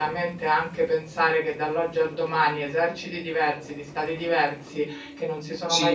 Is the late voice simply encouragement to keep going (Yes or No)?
Yes